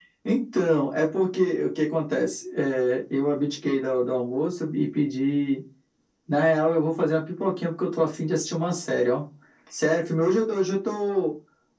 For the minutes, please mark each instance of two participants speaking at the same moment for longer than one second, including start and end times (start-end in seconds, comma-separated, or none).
none